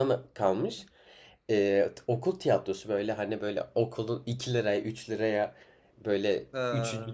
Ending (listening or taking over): listening